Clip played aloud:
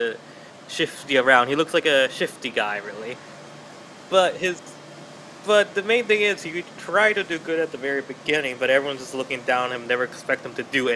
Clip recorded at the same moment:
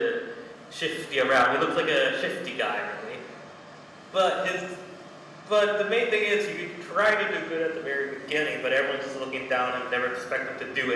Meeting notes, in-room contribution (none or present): none